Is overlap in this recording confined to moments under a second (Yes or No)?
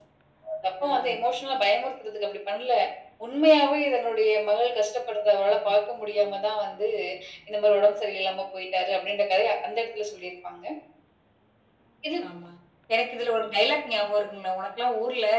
Yes